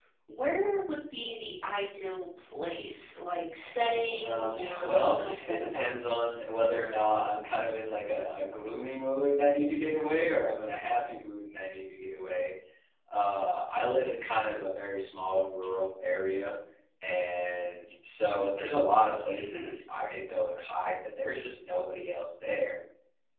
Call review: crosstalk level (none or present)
present